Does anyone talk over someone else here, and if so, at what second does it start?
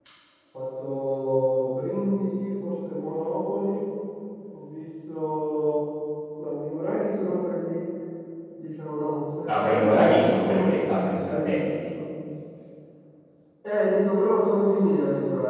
9.5 s

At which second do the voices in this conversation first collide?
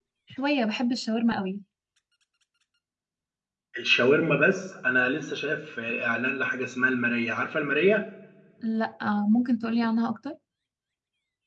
none

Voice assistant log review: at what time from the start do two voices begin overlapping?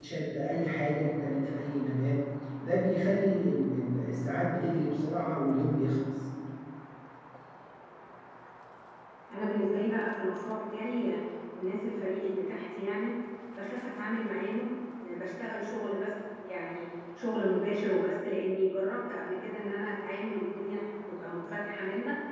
none

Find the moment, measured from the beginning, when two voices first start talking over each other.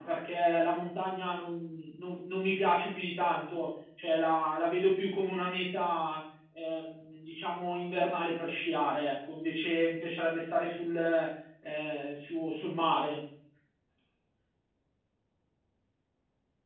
none

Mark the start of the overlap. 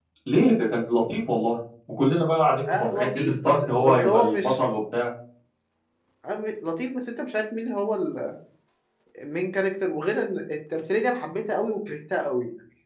2.7 s

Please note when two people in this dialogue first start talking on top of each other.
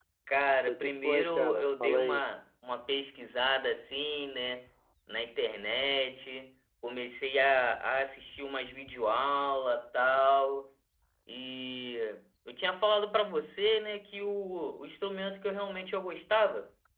0.7 s

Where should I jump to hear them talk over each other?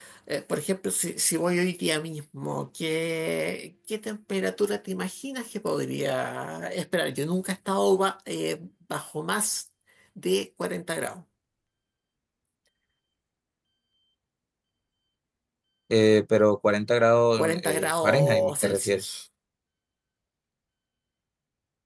17.4 s

